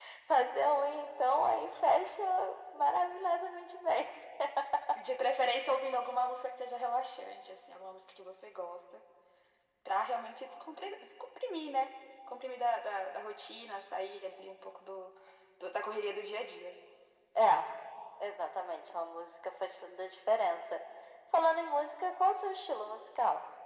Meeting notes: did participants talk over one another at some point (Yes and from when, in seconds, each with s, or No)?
No